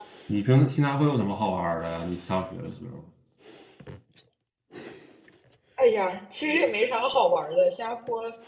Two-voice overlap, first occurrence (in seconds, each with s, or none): none